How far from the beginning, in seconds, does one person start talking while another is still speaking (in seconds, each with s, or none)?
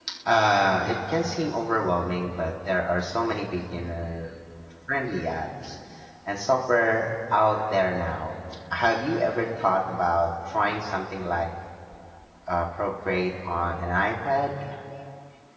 none